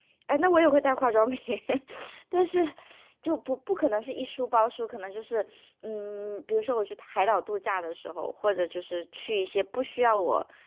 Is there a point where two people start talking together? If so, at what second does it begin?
none

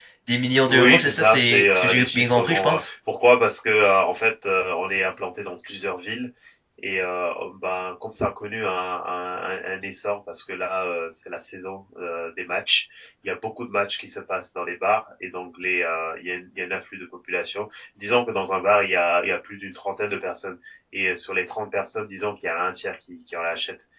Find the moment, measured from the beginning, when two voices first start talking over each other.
0.7 s

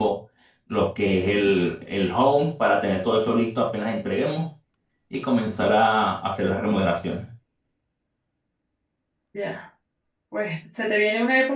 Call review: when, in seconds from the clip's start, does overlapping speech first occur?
none

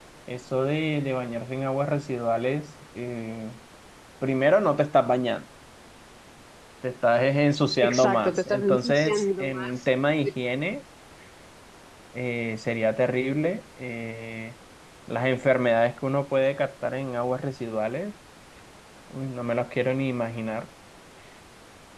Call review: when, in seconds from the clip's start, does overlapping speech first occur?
7.8 s

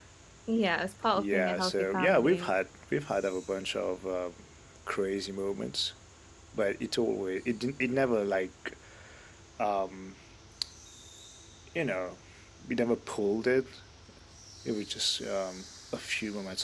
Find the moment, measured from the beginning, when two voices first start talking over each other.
1.2 s

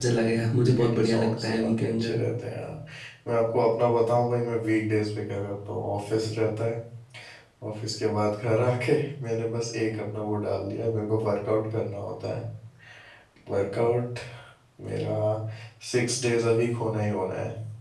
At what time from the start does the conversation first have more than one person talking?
0.6 s

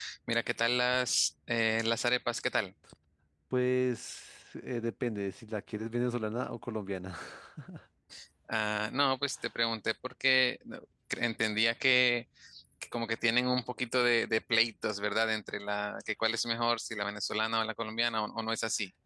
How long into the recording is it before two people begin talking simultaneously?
none

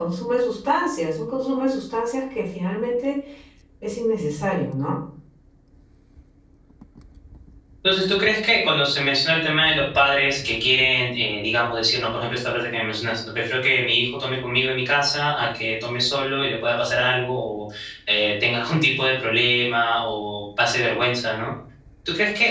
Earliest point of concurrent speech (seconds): none

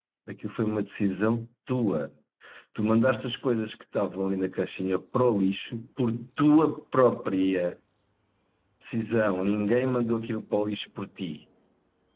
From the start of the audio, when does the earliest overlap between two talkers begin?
none

